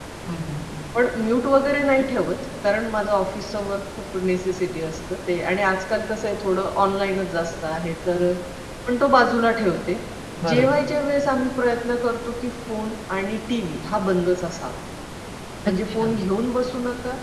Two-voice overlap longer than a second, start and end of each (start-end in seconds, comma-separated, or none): none